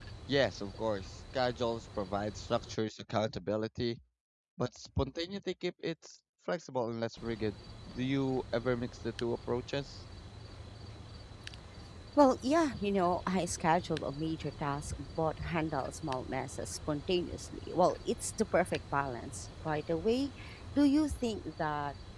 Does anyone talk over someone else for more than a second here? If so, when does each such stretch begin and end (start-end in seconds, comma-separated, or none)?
none